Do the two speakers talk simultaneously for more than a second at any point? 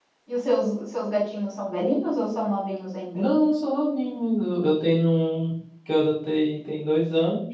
No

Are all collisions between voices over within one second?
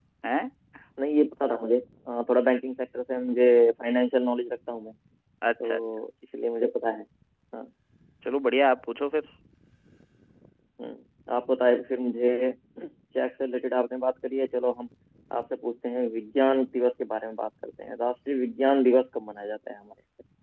Yes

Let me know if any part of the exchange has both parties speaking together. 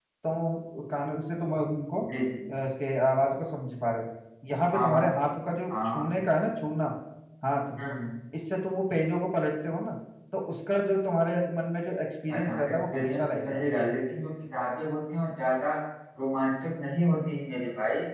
Yes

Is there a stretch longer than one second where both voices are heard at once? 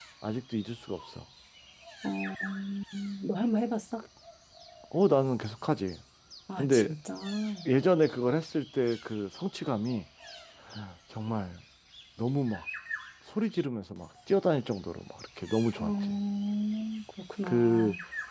No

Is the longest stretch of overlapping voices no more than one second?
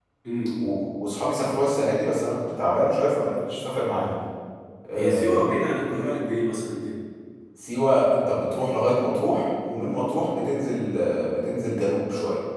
Yes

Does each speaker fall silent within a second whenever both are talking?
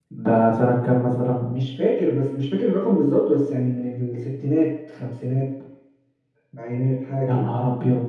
Yes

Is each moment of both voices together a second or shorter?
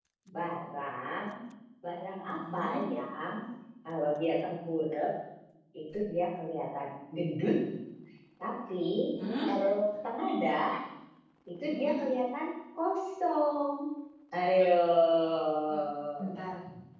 Yes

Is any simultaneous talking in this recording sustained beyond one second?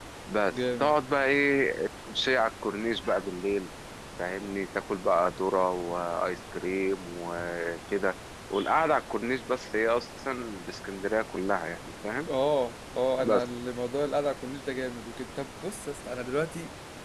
No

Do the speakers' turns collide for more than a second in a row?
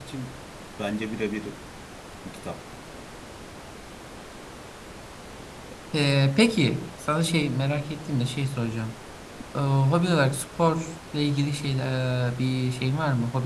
No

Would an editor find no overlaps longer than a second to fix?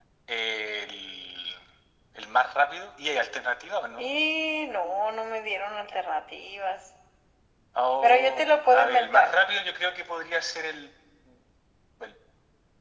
No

